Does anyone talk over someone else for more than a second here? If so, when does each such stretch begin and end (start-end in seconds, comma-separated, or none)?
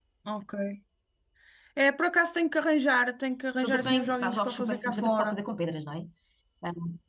3.6-5.4